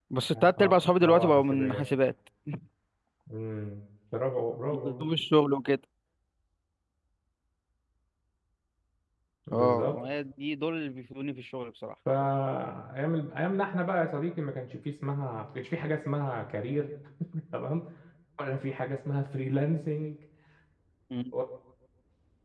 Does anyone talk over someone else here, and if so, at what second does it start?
0.6 s

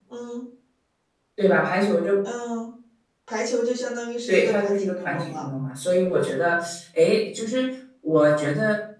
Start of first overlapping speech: 4.3 s

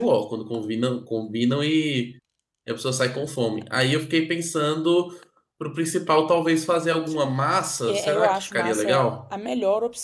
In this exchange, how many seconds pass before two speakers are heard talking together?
7.9 s

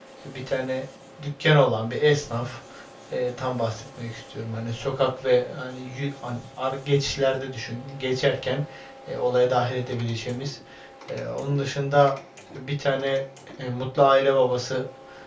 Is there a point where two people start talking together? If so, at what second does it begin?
none

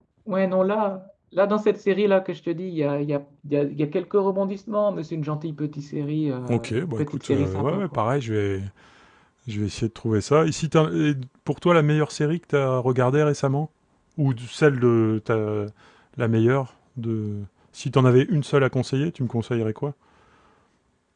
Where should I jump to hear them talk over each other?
6.5 s

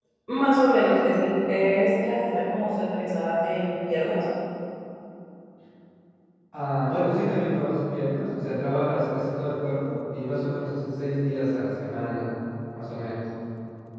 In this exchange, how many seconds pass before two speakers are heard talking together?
none

